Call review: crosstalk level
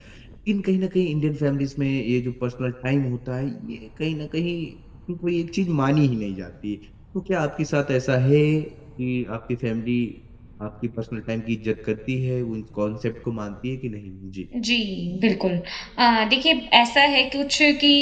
none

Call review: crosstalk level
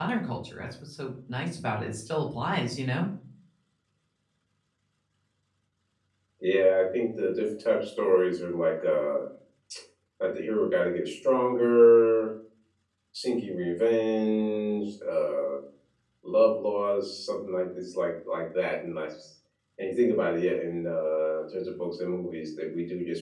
none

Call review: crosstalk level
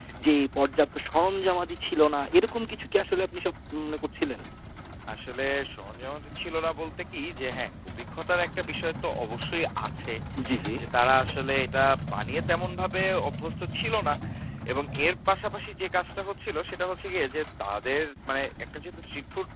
none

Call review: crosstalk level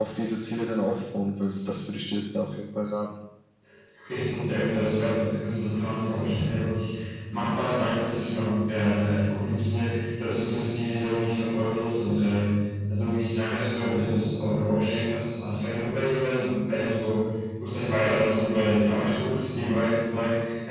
none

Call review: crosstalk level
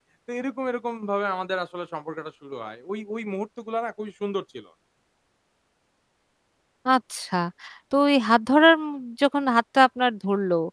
none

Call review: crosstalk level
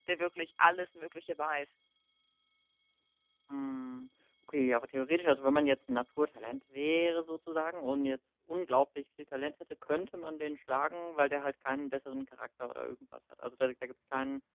none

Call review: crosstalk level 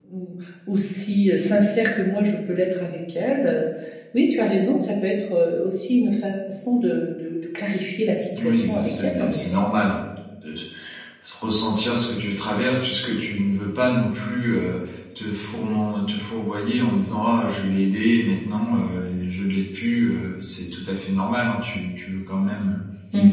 present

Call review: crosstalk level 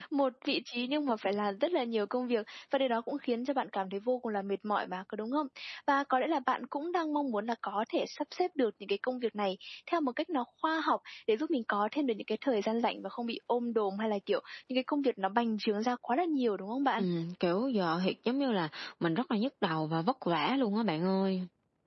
none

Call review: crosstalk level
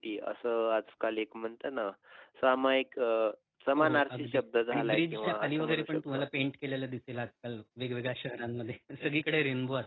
present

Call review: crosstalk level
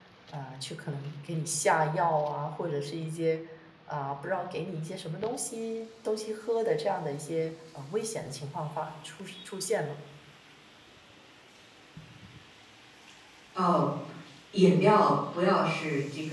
none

